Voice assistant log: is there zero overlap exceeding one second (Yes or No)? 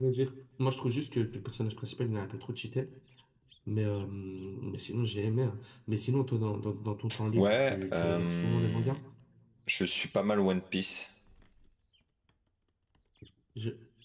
No